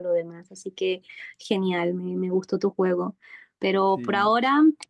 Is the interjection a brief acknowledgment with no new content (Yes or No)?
Yes